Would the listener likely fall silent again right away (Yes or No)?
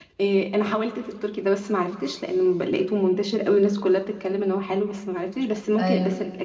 Yes